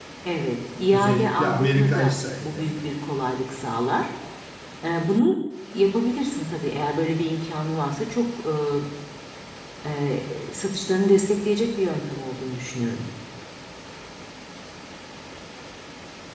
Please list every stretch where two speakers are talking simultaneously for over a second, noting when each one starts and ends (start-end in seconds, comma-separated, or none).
0.9-3.0